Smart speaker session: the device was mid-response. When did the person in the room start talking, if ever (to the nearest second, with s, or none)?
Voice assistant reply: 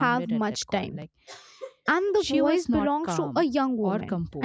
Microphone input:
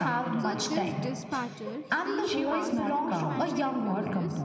0 s